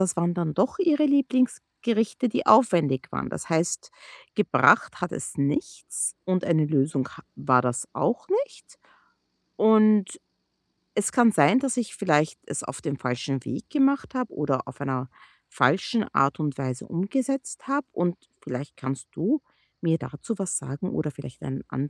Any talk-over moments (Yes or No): No